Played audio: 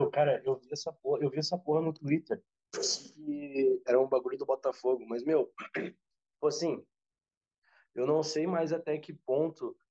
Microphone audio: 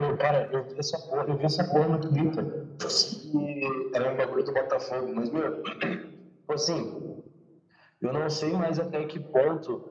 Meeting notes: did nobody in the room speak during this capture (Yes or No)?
Yes